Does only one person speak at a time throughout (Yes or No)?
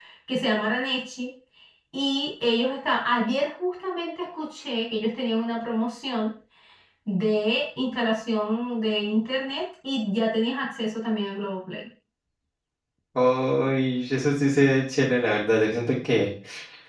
Yes